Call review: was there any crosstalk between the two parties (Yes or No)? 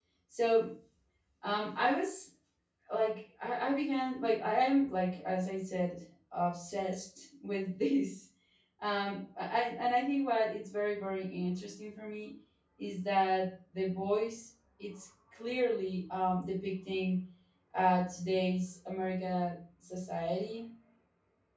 No